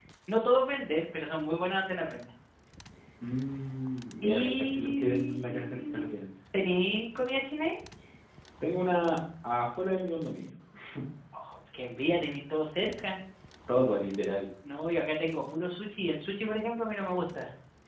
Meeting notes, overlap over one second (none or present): present